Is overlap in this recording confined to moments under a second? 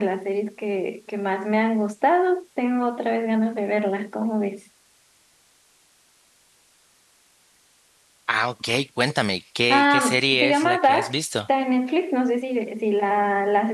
No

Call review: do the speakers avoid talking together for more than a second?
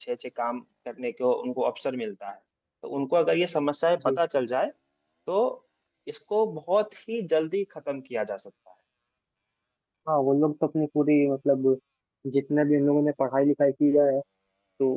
Yes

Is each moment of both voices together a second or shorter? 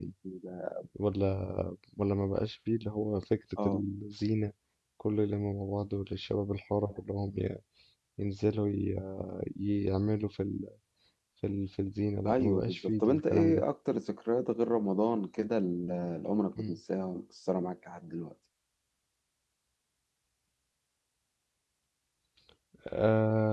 No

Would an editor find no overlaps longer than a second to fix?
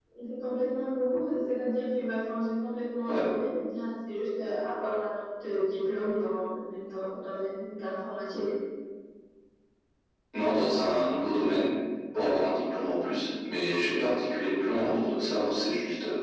Yes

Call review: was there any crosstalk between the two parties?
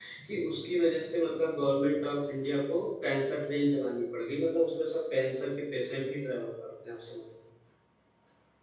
No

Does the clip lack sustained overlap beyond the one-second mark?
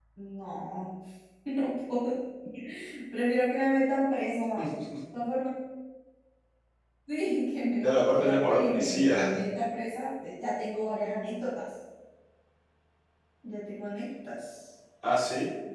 No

